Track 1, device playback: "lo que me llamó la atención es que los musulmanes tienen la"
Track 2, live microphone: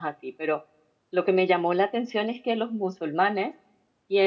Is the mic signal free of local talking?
Yes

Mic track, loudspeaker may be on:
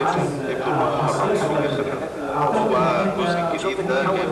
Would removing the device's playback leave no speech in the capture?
No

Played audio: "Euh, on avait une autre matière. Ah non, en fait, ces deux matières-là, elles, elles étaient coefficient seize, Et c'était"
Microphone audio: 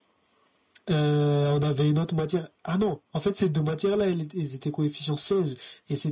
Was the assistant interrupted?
No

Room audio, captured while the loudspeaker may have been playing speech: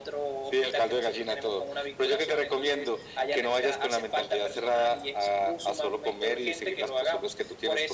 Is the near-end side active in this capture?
No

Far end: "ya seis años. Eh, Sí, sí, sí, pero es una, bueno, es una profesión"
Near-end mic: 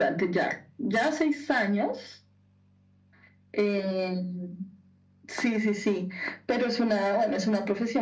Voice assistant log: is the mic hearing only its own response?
Yes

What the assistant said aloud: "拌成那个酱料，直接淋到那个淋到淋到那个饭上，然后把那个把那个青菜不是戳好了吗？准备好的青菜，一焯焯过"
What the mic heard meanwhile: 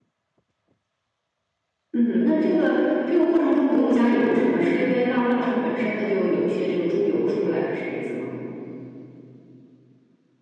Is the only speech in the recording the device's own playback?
No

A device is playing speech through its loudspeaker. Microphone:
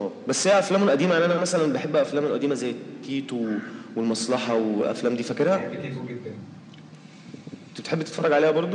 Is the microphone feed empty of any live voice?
No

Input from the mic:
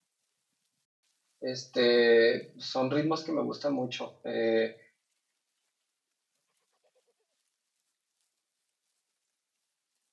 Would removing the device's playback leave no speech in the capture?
No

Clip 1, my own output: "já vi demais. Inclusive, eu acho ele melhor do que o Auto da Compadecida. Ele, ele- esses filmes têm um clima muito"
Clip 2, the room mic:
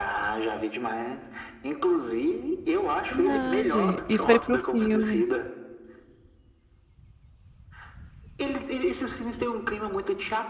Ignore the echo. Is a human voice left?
Yes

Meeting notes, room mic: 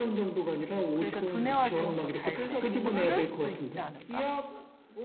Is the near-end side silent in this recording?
No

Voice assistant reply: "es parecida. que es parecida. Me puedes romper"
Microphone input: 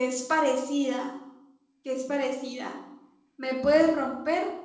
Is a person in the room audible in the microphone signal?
No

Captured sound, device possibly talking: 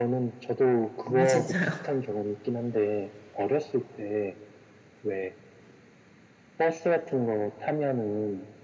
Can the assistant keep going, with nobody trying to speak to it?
No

